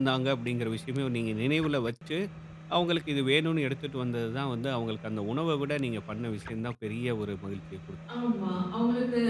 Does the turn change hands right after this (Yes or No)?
Yes